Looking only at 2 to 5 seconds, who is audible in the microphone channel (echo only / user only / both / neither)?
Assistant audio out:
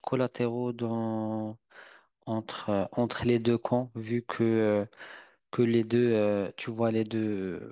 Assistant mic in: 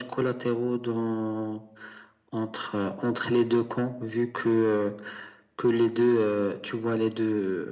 echo only